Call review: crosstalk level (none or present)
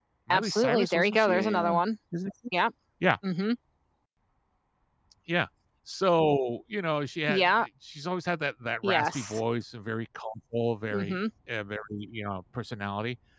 present